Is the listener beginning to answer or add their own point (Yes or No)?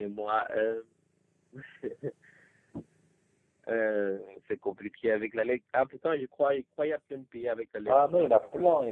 Yes